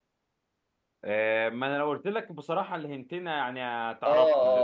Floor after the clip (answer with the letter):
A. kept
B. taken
B